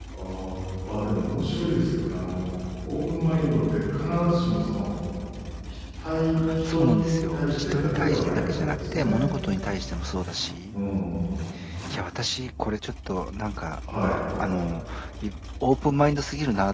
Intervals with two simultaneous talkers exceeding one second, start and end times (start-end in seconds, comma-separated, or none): 6.6-9.2